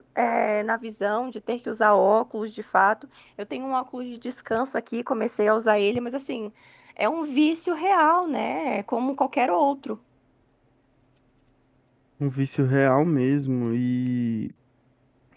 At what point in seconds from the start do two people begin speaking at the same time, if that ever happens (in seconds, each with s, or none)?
none